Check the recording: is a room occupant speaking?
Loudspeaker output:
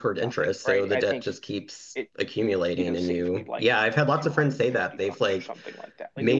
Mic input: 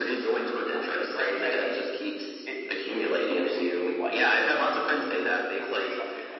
No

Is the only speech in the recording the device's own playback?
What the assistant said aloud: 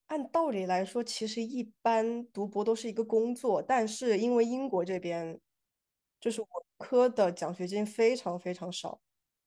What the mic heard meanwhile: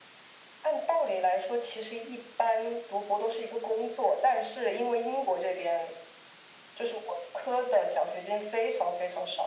Yes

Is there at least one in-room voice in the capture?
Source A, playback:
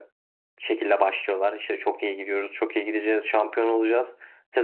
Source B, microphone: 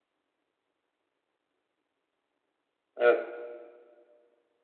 Yes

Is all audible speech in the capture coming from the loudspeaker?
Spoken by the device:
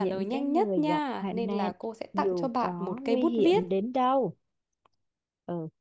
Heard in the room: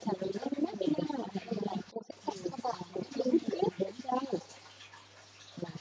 Yes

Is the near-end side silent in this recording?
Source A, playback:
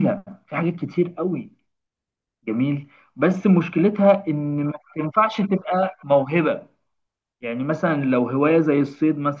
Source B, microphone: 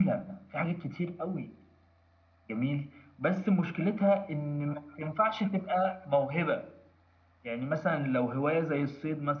Yes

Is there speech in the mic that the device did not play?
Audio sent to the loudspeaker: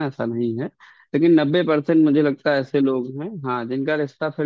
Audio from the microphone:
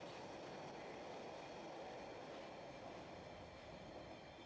No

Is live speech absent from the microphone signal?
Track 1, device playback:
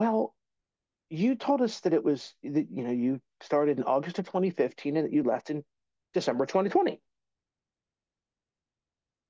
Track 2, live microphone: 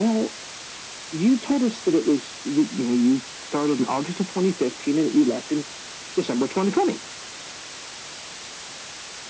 Yes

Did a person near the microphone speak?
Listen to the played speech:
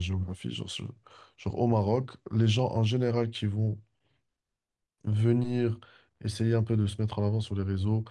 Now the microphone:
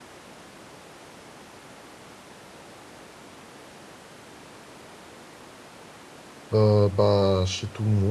Yes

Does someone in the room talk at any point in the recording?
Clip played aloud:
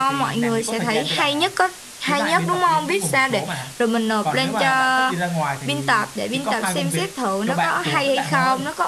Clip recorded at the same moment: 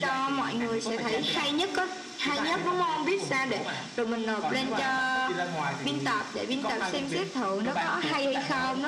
No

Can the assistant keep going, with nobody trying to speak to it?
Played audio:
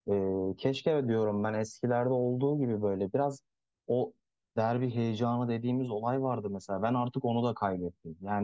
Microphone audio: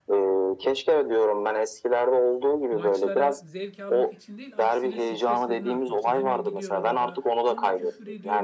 No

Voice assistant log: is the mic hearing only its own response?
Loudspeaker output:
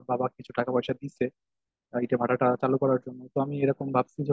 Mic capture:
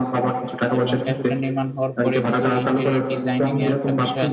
No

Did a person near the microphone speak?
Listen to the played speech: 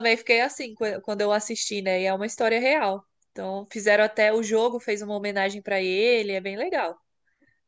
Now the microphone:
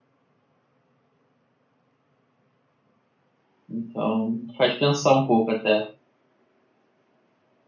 Yes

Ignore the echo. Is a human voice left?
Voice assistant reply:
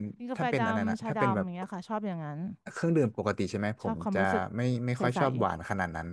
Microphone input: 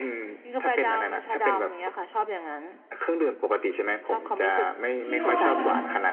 Yes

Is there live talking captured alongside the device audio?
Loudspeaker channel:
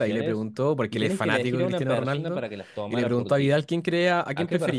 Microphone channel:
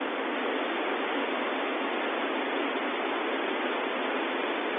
No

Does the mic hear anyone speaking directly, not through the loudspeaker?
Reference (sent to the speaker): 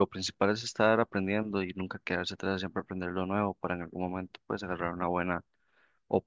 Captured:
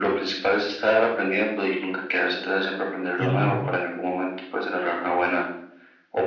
Yes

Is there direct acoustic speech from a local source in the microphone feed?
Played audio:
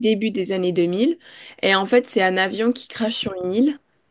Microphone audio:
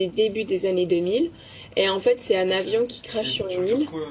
Yes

